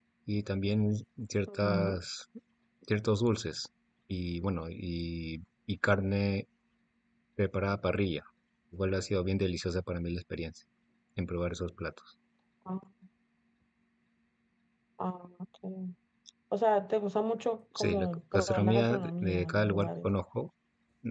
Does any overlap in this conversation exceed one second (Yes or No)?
Yes